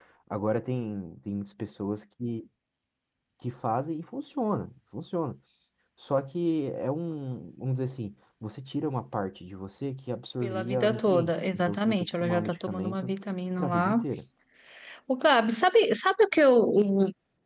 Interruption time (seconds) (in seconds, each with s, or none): 10.4 s